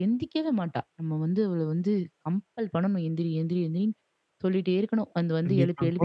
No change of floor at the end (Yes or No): No